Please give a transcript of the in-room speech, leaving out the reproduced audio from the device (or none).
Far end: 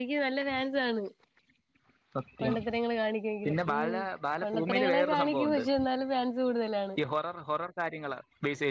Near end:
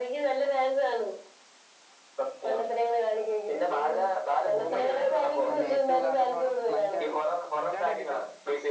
ഉം അതിനേറ്റവും ഉദാഹരണമാണുമഞ്ചാടി. 'മഞ്ചാടി 'കണ്ടിട്ടു